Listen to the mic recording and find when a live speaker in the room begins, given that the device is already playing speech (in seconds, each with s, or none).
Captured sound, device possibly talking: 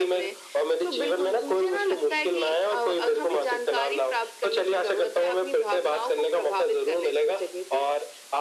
none